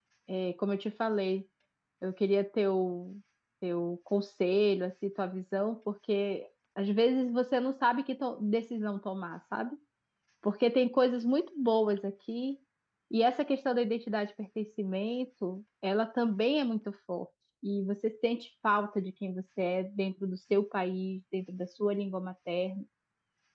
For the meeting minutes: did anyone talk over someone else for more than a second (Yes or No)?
No